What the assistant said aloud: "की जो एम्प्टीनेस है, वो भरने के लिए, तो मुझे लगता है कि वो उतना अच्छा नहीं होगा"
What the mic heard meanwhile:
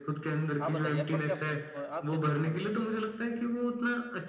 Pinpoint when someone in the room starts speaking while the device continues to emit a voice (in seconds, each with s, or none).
0.6 s